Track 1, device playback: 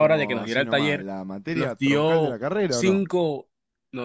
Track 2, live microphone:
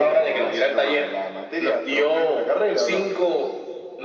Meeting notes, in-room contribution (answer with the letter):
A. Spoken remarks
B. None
B